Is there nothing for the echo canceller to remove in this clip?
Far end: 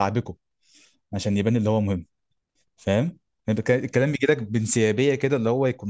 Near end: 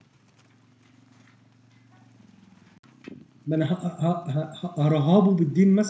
Yes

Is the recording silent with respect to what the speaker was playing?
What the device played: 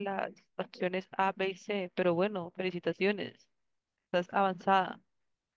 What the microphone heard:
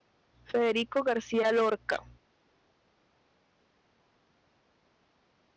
Yes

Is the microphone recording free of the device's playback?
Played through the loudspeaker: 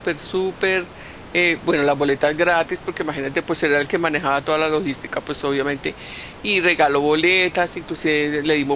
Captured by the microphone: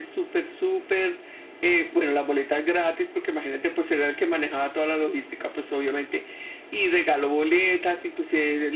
No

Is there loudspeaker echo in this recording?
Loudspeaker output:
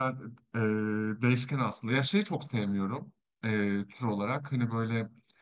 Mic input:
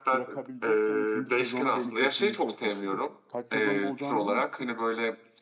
Yes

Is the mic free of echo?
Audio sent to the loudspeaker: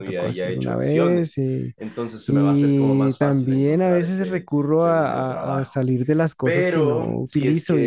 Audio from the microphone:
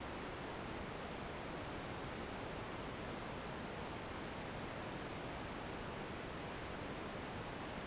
Yes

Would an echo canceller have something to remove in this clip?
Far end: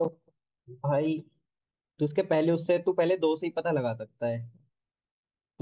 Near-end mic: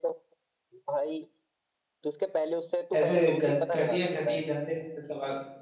Yes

